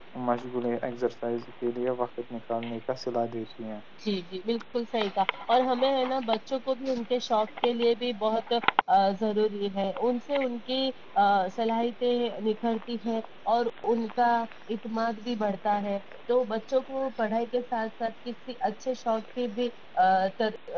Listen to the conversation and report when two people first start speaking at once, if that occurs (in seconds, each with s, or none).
none